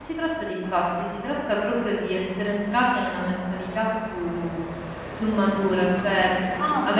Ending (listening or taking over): listening